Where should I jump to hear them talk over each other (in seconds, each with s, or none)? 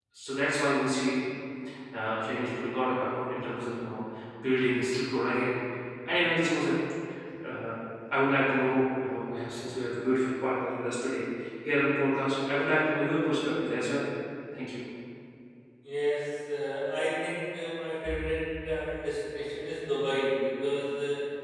none